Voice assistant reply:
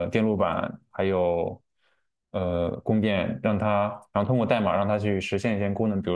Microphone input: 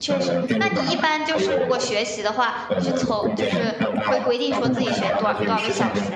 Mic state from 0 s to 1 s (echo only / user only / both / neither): both